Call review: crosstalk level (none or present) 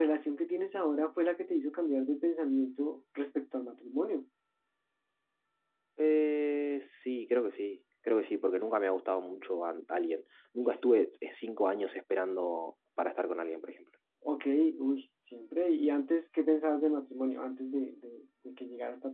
none